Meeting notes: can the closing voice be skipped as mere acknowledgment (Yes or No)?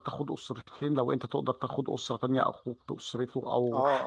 No